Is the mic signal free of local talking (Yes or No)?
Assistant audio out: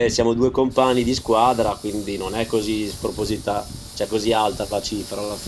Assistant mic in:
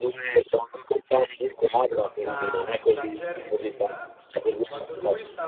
No